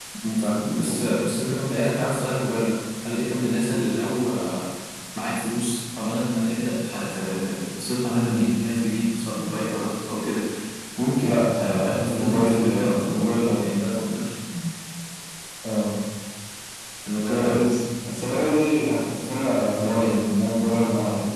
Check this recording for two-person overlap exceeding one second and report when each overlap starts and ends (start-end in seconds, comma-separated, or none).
11.2-13.2